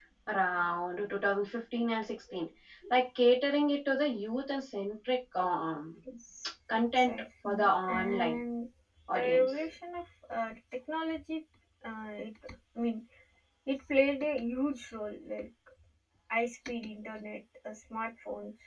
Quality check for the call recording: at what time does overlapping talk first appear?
6.7 s

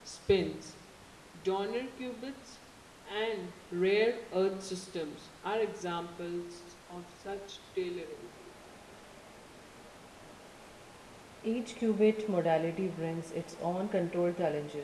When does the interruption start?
none

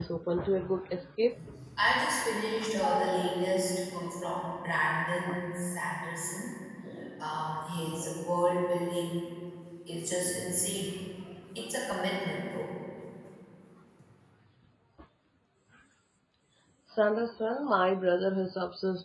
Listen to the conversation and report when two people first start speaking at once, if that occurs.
none

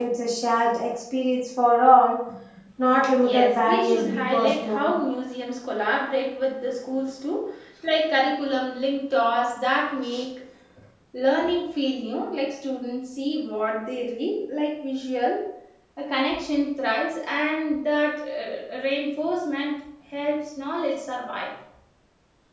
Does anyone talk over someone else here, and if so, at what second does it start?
3.2 s

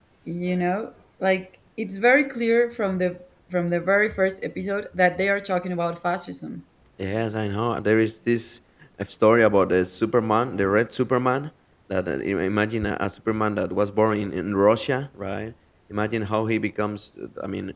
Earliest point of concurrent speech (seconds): none

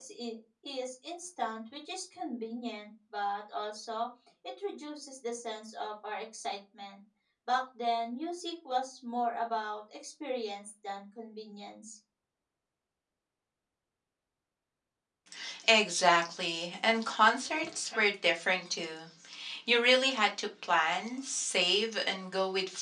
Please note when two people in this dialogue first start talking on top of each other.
none

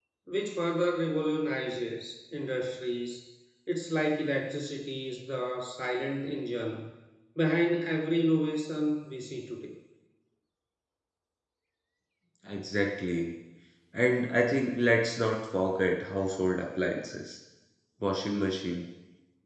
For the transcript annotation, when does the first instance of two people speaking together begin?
none

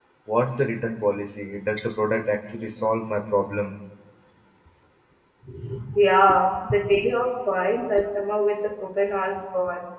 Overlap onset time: none

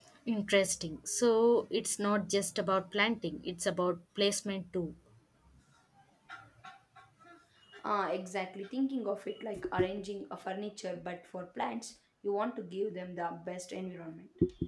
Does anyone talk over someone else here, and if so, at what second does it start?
none

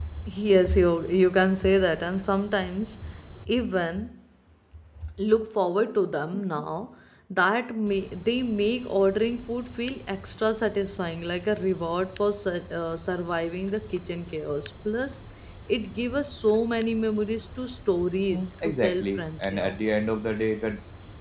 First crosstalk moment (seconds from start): 18.3 s

